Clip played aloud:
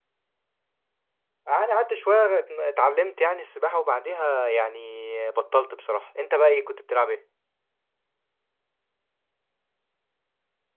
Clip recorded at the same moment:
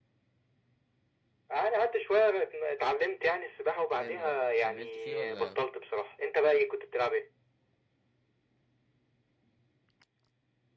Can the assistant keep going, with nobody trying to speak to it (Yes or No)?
No